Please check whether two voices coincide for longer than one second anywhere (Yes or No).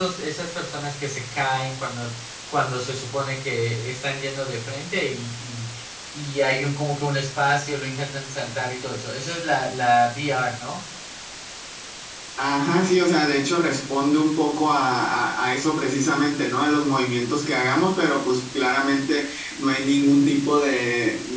No